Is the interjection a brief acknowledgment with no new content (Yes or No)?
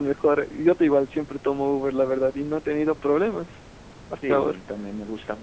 No